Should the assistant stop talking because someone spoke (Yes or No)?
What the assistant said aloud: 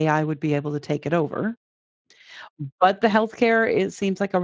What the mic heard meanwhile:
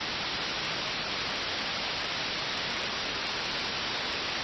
No